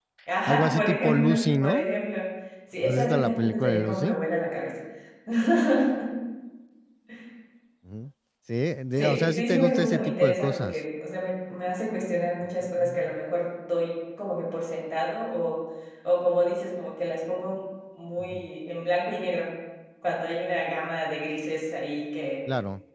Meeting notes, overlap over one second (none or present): present